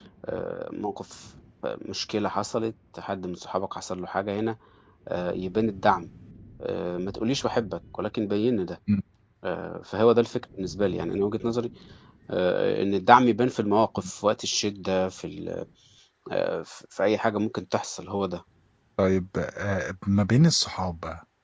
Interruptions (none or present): none